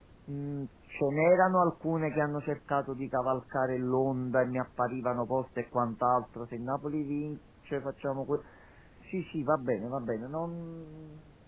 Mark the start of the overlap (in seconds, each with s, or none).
none